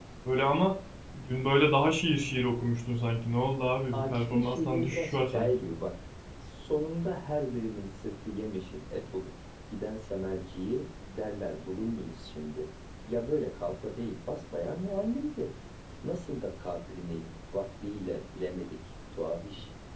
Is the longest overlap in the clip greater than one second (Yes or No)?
Yes